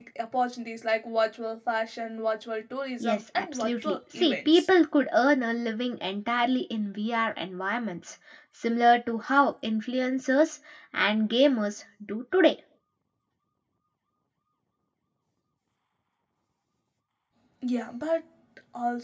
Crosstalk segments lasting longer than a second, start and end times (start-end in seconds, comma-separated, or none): 3.0-4.6